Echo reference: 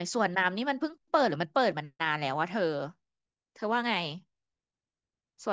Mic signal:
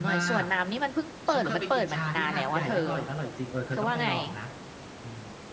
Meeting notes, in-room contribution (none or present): present